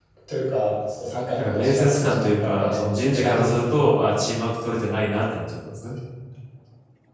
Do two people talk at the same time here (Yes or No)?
Yes